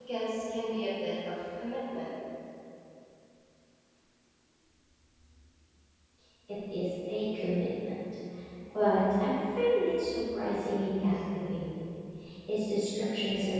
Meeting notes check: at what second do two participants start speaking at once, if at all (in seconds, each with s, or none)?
none